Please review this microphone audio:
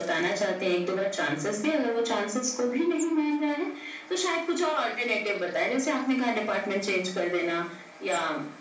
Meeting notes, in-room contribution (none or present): none